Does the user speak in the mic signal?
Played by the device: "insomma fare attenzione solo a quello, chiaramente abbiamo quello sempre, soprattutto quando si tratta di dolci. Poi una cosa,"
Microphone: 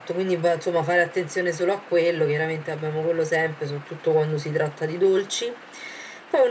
No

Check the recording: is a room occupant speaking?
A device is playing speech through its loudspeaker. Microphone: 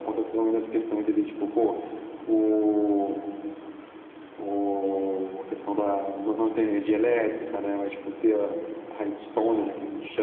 No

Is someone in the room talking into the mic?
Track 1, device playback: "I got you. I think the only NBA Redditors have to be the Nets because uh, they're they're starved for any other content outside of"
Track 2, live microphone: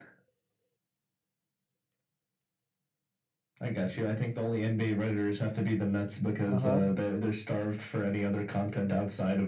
Yes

